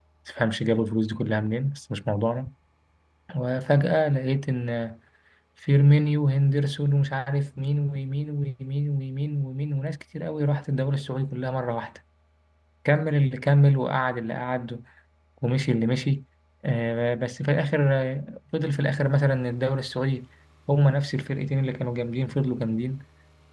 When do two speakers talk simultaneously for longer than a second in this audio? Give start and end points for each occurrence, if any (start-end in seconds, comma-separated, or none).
none